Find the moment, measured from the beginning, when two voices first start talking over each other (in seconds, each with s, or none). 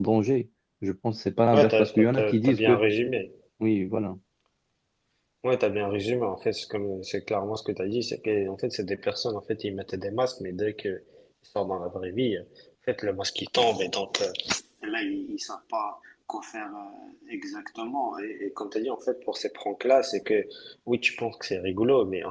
1.5 s